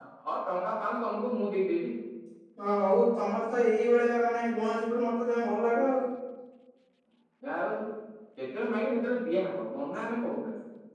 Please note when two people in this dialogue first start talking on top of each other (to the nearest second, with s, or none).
none